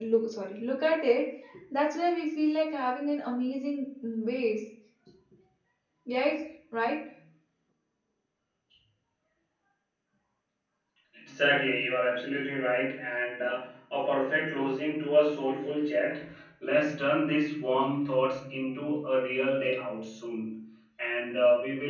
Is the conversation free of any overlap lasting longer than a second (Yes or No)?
Yes